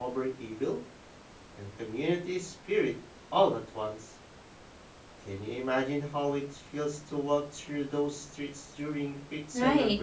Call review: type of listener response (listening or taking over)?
taking over